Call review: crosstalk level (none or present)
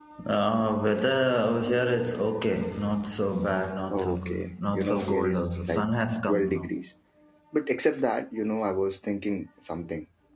present